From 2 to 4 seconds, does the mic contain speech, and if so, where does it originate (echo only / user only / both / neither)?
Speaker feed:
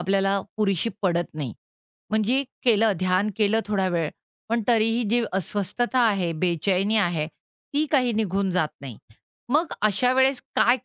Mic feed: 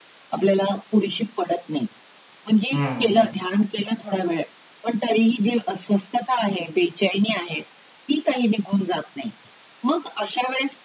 both